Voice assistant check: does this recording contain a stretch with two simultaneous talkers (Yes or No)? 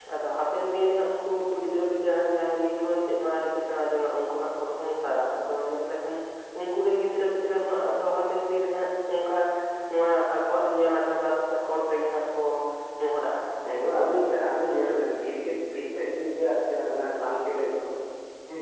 No